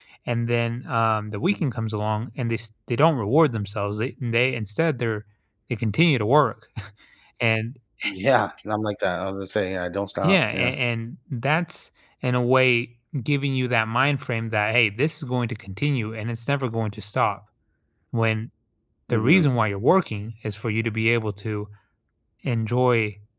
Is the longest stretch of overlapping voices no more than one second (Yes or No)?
Yes